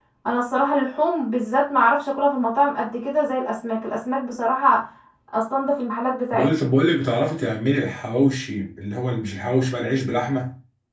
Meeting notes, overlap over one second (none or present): none